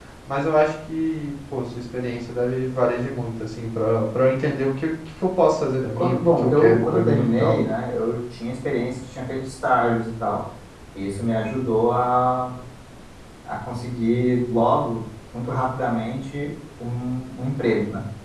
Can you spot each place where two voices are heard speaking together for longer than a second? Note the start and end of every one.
6.0-7.6

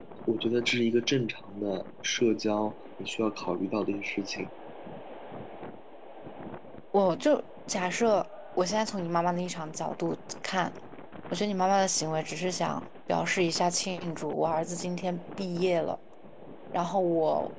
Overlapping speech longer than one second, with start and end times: none

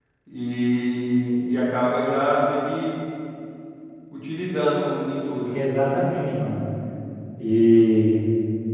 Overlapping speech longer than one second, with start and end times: none

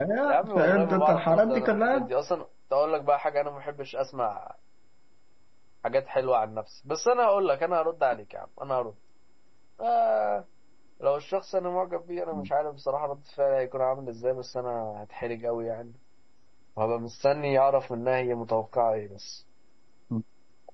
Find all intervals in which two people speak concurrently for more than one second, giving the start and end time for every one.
0.6-2.1

